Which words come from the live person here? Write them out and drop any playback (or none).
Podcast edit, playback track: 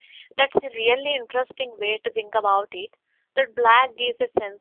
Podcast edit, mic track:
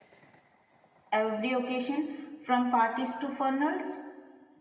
every occasion, from parties to funerals?